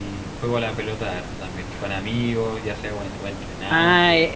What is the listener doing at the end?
taking over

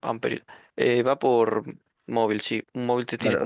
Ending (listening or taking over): taking over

